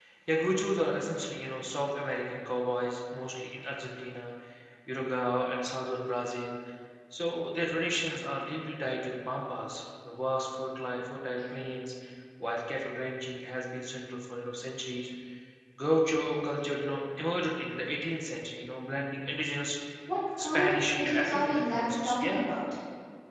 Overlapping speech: Yes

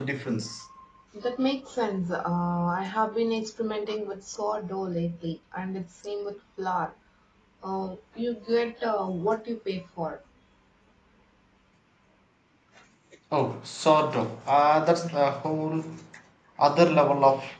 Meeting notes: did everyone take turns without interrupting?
Yes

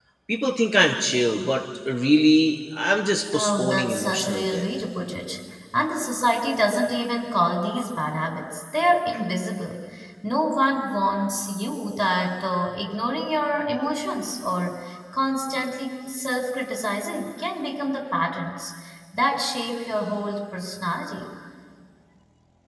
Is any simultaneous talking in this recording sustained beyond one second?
Yes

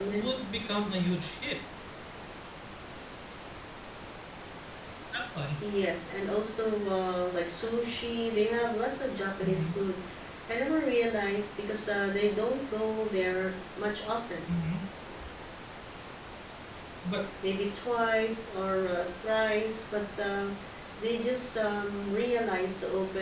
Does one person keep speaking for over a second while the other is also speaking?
No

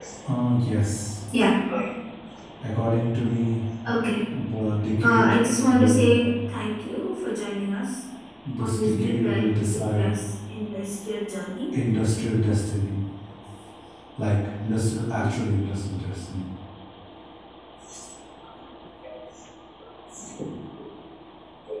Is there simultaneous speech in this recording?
Yes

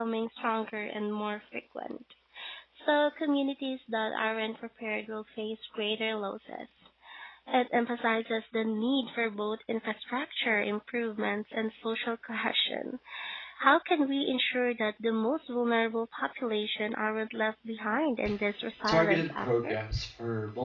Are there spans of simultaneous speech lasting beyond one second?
Yes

